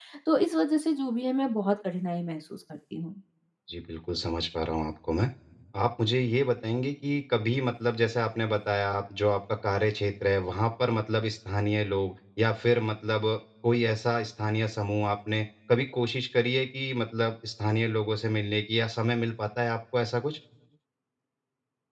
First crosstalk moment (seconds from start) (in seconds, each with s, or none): none